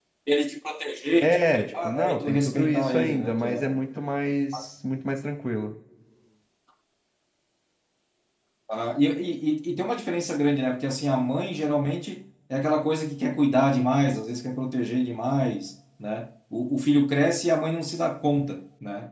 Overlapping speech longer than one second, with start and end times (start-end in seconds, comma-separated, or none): 1.2-3.8